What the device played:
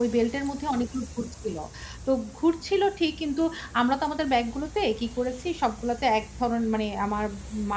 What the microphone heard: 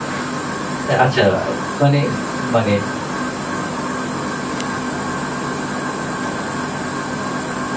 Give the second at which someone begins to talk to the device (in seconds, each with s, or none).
0.9 s